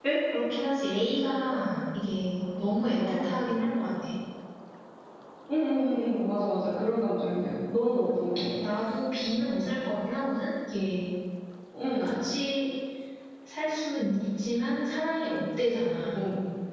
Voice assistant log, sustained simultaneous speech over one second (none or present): none